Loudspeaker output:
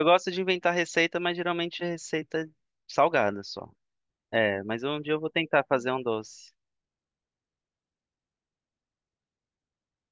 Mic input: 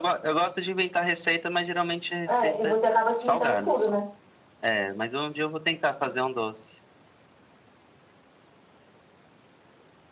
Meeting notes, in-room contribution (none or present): present